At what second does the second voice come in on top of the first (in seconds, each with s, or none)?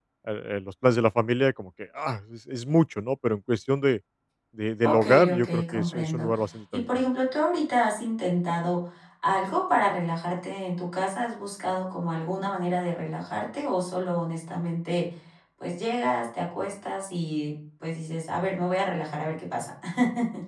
4.8 s